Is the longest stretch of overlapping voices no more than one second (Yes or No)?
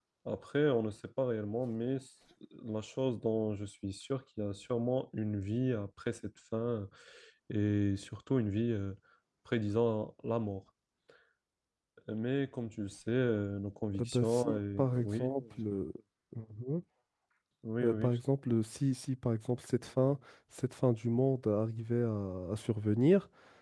No